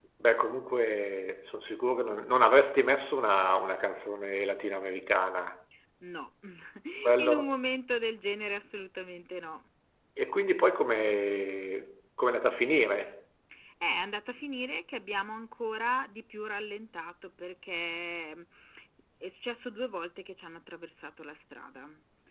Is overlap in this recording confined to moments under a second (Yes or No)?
Yes